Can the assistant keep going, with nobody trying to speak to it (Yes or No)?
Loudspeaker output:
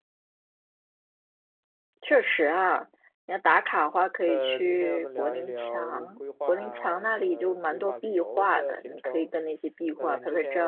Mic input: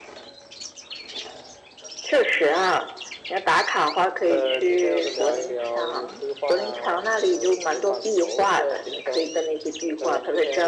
Yes